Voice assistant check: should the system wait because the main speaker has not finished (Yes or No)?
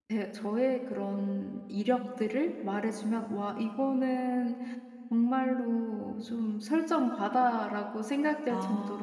Yes